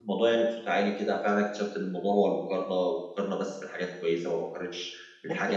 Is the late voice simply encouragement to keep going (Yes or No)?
No